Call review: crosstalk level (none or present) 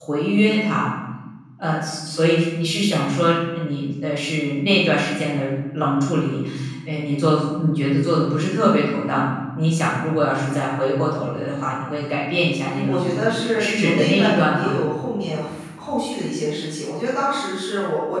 present